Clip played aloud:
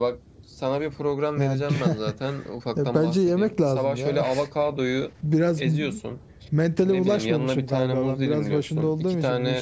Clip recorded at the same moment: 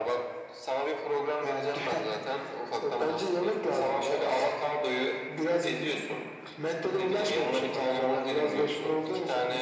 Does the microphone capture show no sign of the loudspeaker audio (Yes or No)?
No